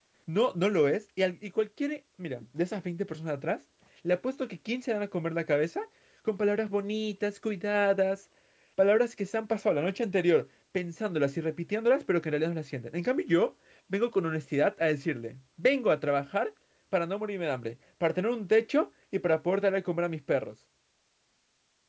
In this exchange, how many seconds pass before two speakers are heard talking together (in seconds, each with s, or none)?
none